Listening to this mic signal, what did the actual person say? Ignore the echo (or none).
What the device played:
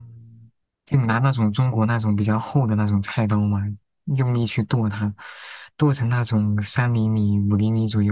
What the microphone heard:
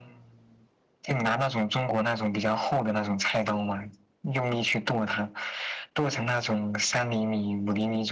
none